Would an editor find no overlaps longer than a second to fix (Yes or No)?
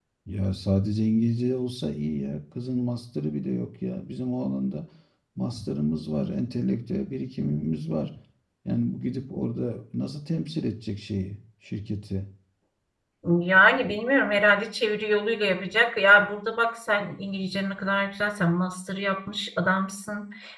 Yes